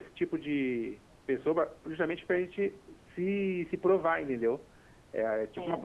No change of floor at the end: Yes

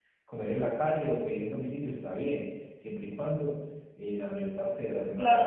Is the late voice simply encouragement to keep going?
No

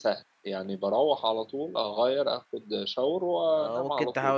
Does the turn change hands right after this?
Yes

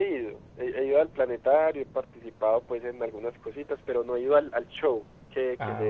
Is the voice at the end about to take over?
No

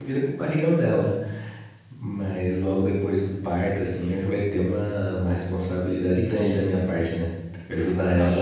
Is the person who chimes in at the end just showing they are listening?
No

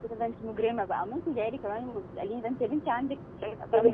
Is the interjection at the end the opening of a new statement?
Yes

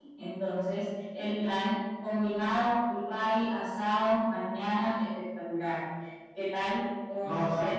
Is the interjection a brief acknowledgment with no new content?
No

